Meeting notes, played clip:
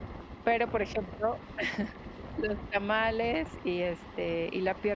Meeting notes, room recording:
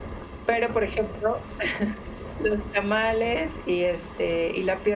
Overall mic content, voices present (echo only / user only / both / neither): echo only